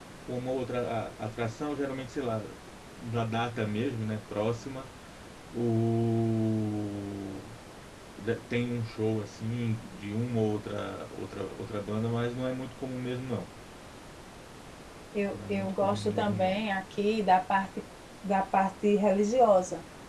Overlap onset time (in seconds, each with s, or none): 15.3 s